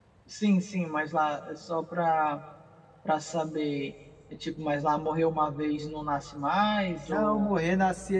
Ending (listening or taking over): taking over